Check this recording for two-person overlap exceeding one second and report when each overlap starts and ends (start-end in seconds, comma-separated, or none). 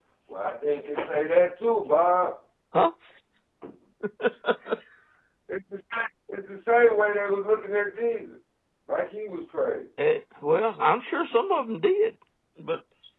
none